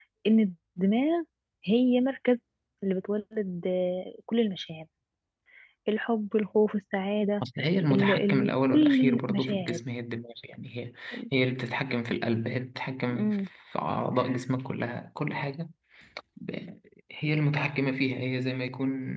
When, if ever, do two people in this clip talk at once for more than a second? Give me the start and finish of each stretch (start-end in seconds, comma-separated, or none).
7.9-9.8